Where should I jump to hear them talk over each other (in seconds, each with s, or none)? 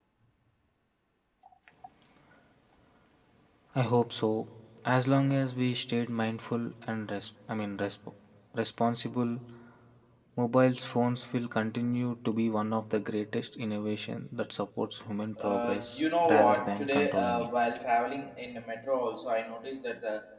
15.4 s